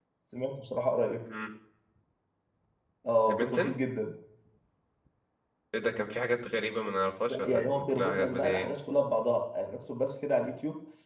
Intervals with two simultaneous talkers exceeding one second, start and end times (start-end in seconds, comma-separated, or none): 7.3-8.7